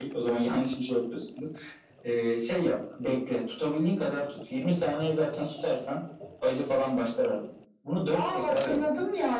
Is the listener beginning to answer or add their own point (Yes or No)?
Yes